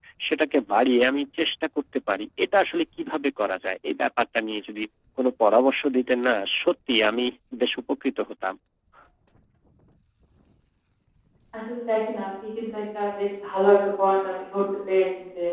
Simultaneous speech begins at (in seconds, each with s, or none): none